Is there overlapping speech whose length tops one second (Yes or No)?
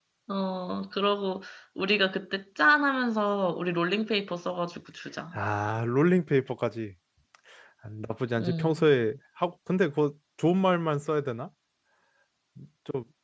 No